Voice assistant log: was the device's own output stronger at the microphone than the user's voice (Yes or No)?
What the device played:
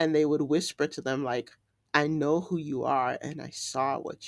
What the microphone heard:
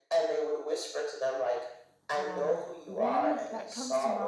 Yes